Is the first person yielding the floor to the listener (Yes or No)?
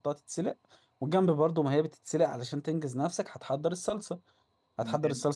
No